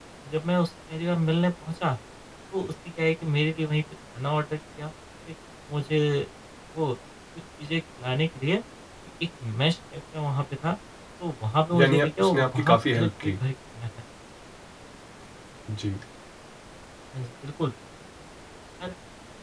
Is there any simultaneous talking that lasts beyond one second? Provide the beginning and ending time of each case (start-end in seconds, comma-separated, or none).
11.8-13.3